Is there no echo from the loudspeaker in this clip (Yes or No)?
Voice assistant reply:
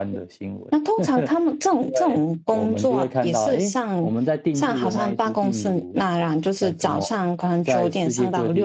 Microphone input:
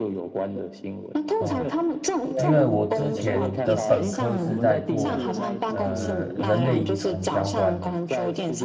No